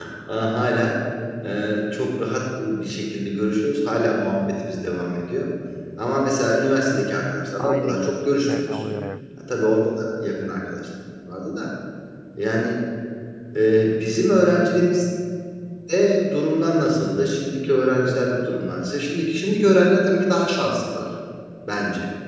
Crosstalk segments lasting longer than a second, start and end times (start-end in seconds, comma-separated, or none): 7.6-8.8